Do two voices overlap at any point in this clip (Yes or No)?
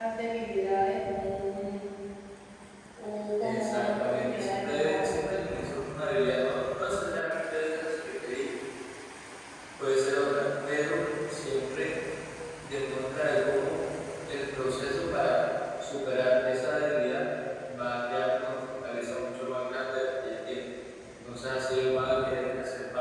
Yes